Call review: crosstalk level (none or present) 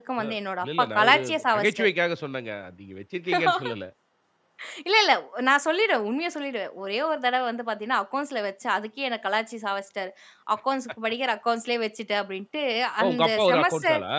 present